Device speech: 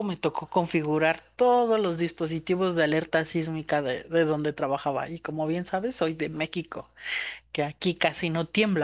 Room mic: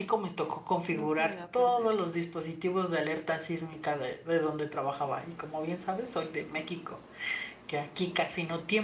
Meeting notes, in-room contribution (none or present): present